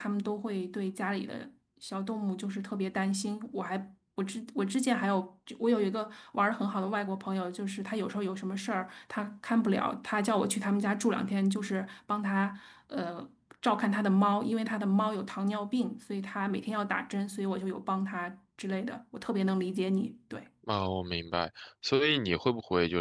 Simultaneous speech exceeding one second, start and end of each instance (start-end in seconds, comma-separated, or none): none